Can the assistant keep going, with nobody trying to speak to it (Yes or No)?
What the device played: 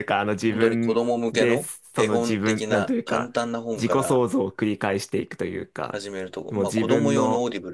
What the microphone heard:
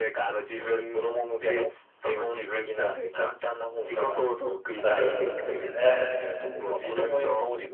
No